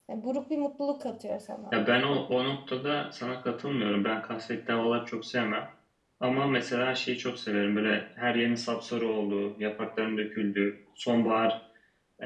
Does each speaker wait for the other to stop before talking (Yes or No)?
Yes